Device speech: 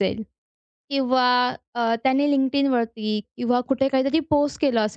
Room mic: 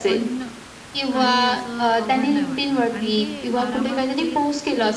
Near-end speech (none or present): present